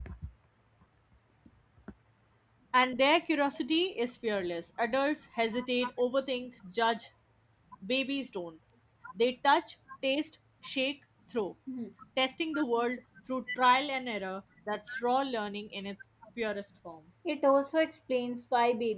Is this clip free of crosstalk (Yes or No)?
Yes